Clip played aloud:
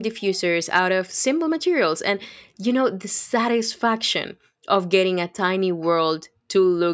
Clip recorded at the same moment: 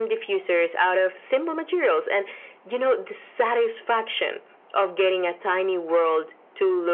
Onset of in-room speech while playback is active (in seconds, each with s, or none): none